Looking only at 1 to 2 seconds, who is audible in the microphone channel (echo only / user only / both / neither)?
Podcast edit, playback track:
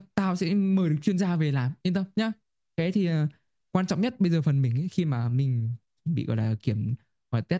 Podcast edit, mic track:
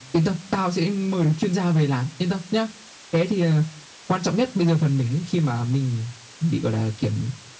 echo only